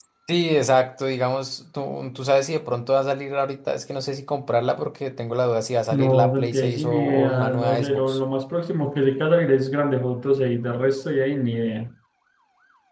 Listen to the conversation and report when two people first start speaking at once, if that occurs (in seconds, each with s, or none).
5.9 s